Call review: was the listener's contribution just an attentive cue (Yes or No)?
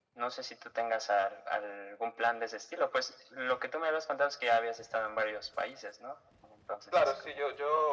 No